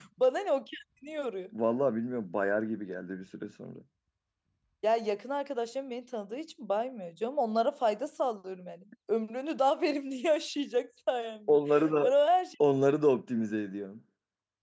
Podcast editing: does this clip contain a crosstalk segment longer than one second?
No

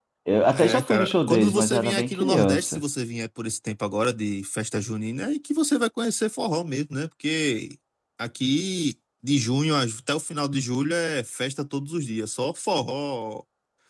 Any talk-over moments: Yes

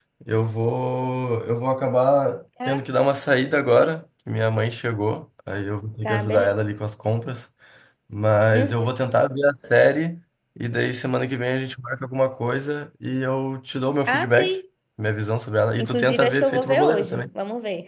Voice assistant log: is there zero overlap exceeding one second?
No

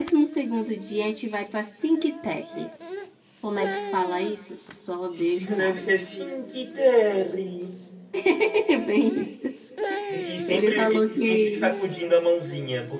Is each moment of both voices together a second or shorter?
No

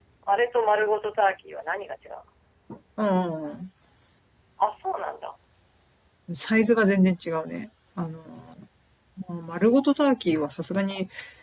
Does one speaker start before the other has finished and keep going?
No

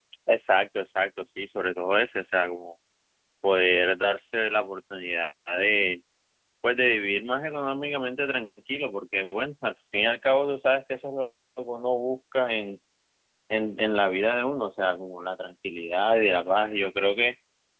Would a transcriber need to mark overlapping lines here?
No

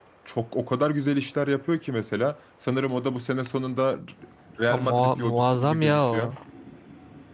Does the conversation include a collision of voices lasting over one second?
Yes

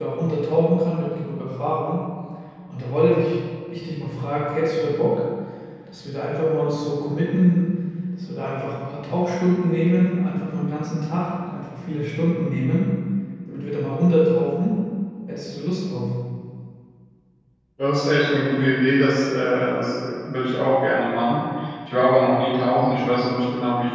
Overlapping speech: No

